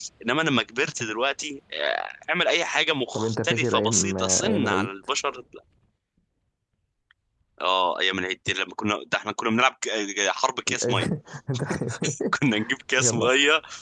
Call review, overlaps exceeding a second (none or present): present